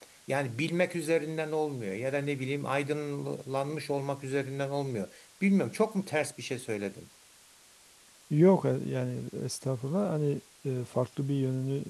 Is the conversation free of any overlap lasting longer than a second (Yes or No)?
Yes